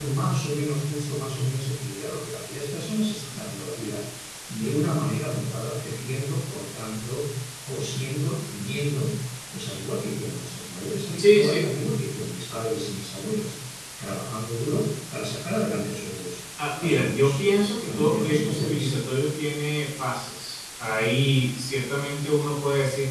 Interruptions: present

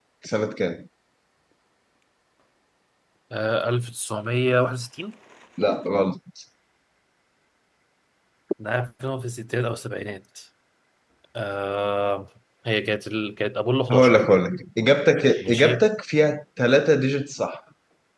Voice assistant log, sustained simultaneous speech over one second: none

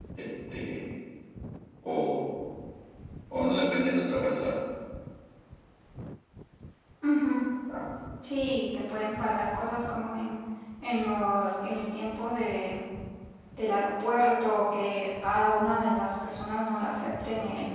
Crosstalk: none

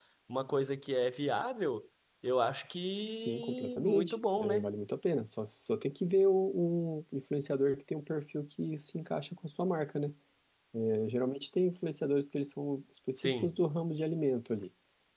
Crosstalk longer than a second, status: present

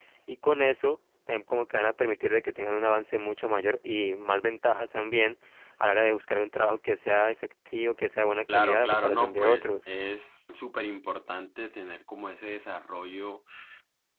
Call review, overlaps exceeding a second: present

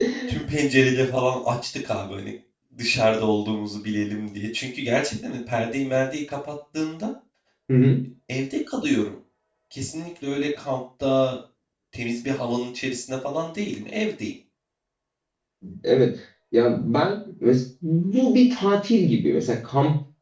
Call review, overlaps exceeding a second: none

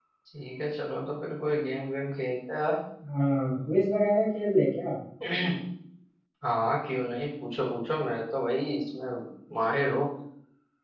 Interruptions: none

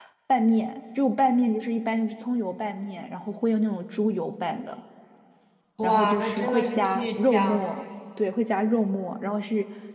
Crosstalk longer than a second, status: present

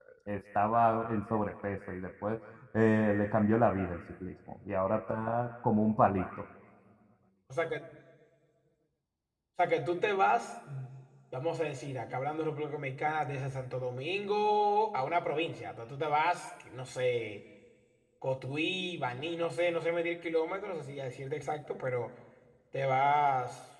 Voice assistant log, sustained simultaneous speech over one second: none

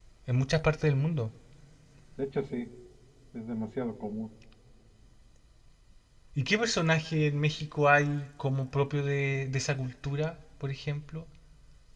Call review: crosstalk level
none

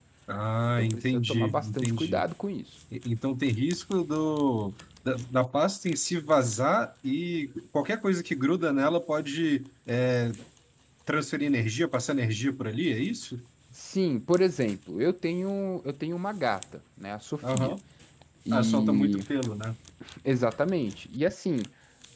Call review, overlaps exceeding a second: present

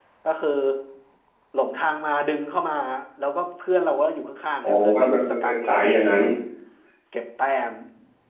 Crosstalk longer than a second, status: present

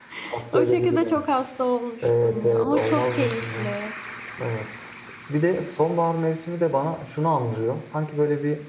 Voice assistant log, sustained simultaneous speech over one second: present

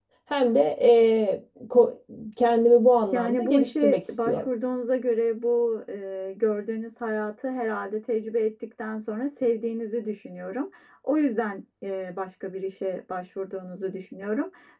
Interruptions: present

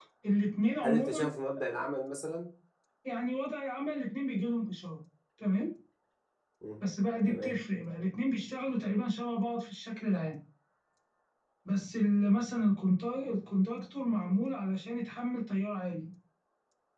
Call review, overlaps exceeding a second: none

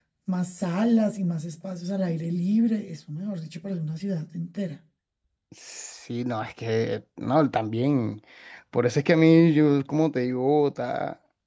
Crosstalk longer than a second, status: none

